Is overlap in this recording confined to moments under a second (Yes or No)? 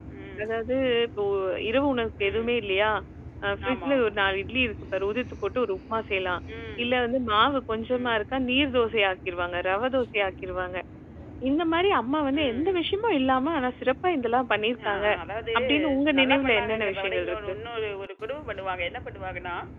No